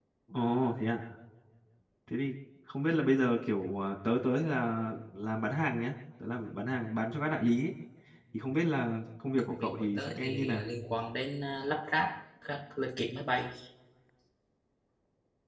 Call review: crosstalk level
present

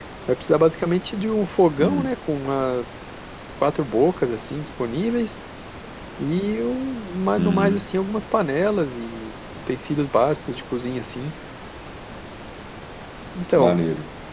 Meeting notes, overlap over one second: none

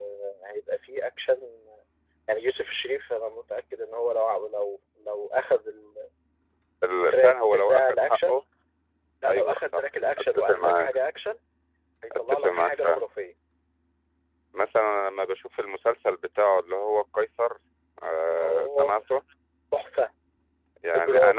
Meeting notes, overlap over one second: present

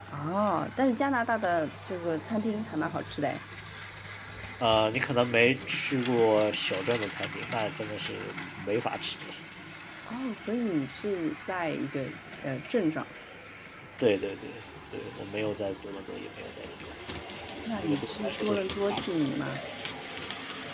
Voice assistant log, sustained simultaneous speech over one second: present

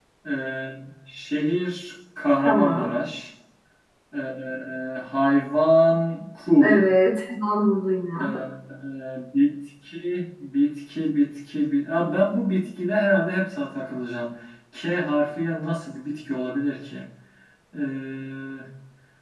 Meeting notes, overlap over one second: none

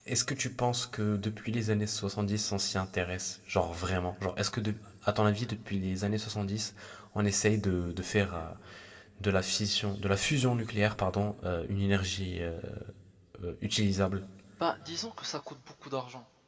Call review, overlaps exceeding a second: none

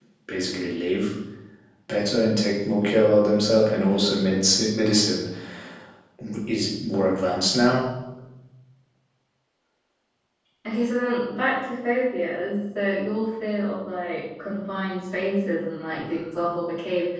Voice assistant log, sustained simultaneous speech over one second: none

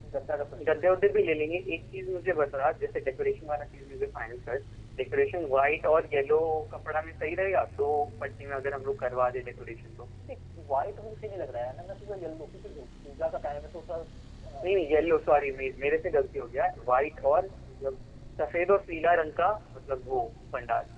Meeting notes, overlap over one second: none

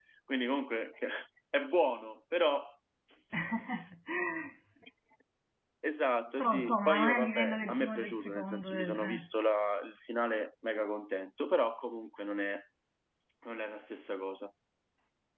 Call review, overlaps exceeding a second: present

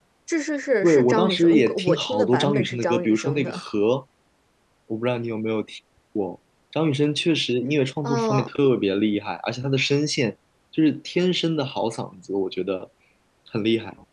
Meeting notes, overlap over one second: present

